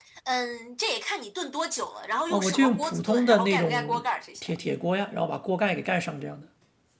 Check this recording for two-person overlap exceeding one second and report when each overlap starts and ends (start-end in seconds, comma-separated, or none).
2.3-4.0